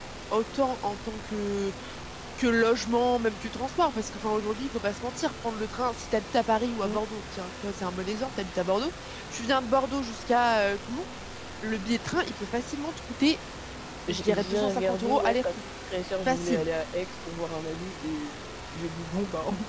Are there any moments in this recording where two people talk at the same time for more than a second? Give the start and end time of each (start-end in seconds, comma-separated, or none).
14.1-15.5